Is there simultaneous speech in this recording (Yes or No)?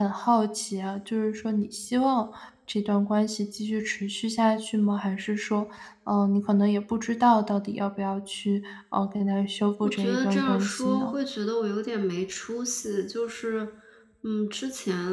Yes